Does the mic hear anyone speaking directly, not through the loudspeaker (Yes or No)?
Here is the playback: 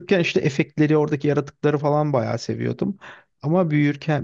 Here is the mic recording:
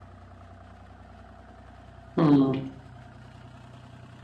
Yes